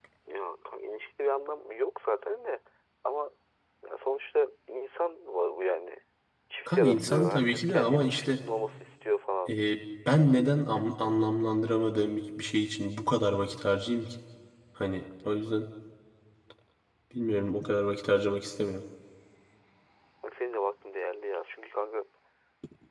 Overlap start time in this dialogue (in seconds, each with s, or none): 6.7 s